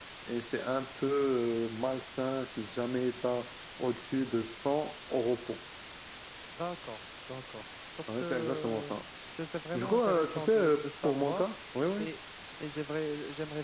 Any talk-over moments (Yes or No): Yes